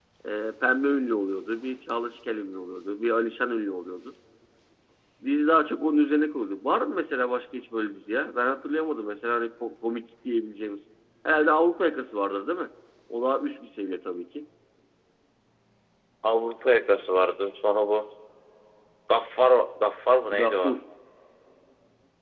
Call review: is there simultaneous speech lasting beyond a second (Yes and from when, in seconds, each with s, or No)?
No